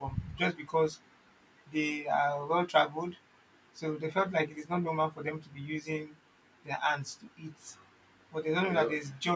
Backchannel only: Yes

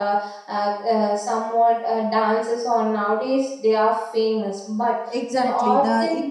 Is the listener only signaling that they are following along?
No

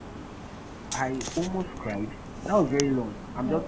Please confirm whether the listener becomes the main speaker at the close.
No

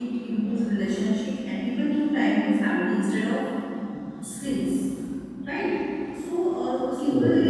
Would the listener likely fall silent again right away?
Yes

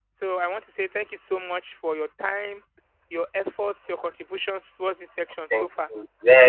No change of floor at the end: No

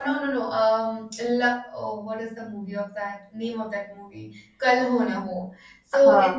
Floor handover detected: No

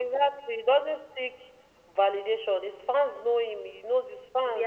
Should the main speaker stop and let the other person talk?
No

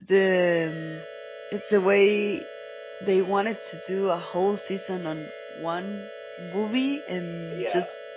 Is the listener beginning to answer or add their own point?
No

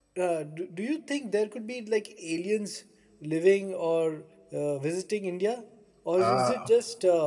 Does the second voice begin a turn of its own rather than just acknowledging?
No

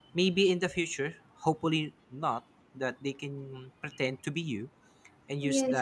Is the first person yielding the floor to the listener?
No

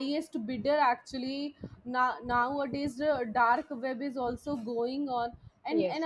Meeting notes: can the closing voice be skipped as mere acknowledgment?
Yes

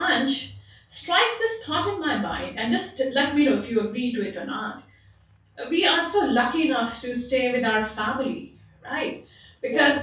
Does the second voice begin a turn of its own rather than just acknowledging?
No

